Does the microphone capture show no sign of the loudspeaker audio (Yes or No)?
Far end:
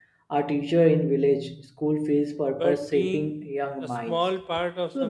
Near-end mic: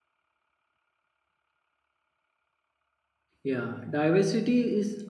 Yes